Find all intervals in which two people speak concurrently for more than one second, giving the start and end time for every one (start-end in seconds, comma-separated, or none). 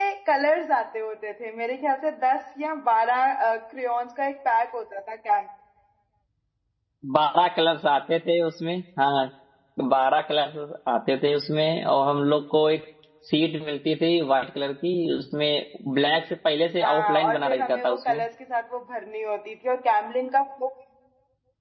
16.8-18.2